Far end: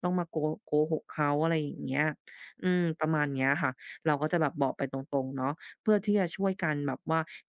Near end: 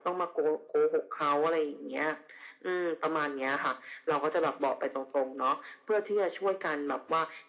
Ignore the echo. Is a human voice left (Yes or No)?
No